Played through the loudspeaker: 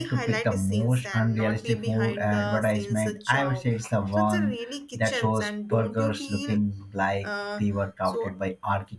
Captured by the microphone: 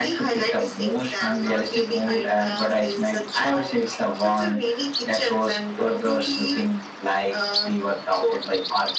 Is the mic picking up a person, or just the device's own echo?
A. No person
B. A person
A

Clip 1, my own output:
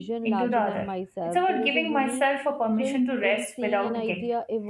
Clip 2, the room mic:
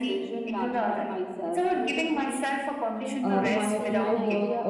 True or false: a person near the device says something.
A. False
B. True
B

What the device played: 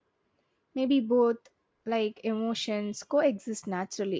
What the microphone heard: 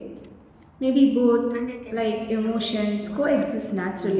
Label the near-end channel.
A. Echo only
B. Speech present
B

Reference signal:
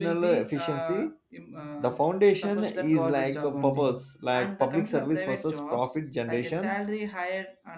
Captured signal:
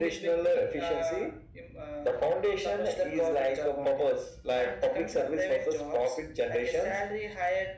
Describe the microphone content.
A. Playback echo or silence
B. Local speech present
A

